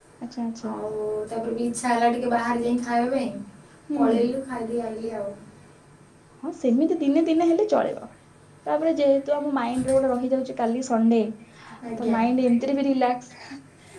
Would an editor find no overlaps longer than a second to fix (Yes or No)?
Yes